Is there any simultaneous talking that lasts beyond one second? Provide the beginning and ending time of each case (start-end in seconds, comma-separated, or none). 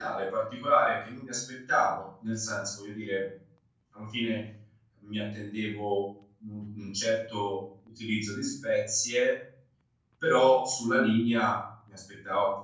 none